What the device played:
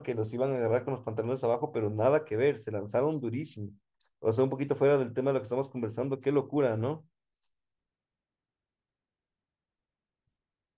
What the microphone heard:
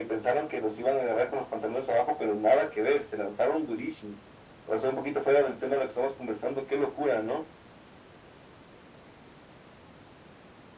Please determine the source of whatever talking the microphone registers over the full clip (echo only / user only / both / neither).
echo only